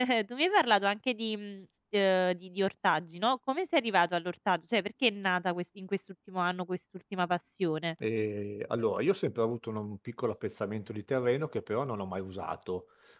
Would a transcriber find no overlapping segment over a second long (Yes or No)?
Yes